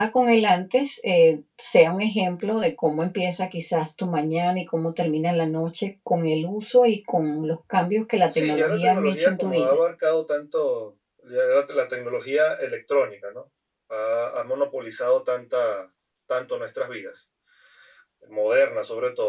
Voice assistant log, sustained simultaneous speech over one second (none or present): present